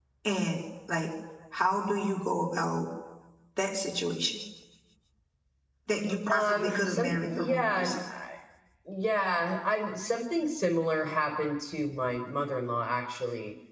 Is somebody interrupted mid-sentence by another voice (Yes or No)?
Yes